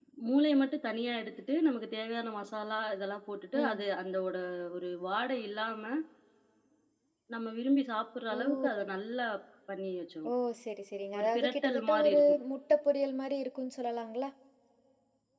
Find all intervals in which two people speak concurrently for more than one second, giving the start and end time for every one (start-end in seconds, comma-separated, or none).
11.2-12.4